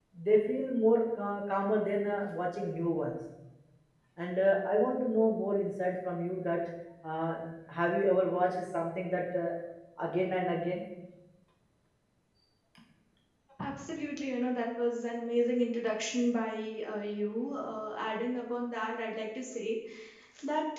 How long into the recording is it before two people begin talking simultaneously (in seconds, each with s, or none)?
none